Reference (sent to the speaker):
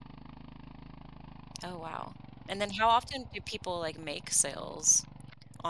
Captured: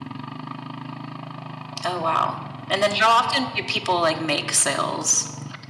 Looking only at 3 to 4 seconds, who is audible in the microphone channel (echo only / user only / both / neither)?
echo only